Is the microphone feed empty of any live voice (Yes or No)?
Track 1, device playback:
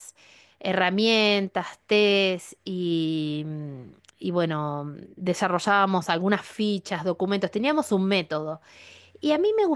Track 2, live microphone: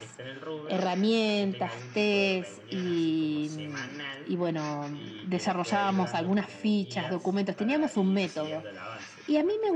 No